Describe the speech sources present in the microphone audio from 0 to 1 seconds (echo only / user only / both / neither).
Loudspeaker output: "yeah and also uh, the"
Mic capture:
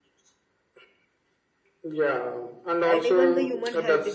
neither